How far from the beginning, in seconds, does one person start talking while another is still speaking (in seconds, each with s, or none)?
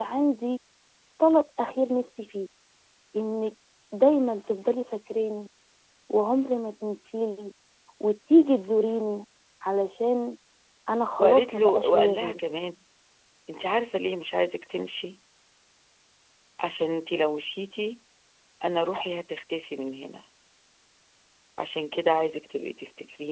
11.2 s